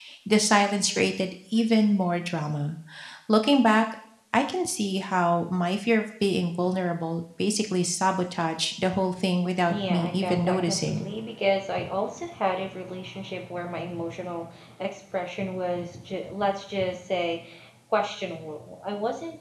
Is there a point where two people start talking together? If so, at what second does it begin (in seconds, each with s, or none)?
9.7 s